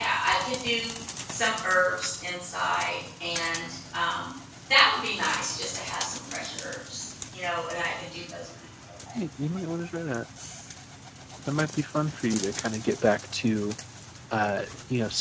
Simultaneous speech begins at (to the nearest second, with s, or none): none